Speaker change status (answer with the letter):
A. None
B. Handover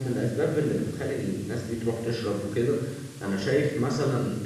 A